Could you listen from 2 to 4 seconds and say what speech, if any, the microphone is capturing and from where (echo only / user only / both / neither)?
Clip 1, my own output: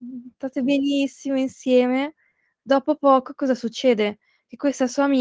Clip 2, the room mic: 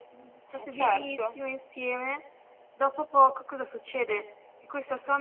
echo only